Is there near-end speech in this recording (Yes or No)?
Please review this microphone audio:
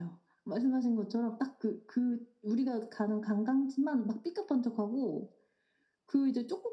No